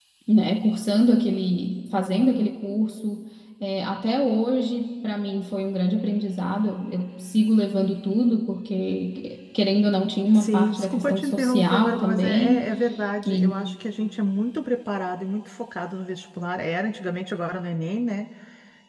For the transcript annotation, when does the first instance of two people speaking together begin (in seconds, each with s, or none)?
10.3 s